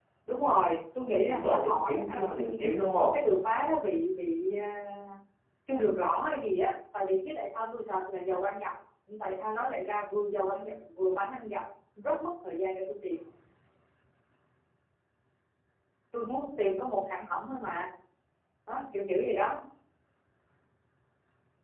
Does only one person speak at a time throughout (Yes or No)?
No